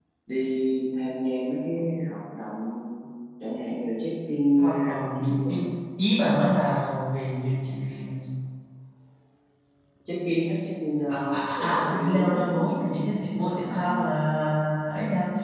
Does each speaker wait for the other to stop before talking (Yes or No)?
No